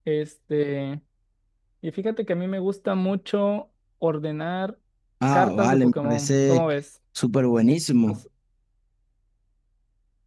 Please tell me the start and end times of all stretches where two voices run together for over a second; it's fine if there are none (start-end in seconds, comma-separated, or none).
5.3-6.7